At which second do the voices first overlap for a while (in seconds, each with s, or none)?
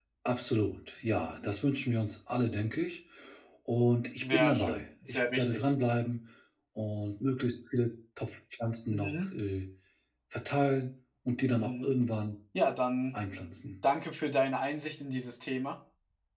4.2 s